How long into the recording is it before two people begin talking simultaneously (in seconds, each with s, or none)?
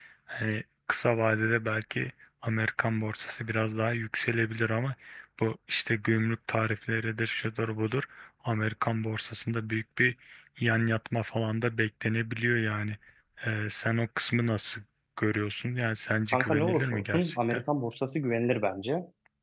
16.3 s